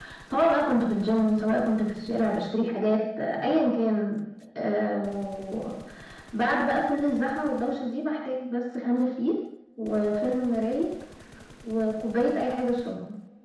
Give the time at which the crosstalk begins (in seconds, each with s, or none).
none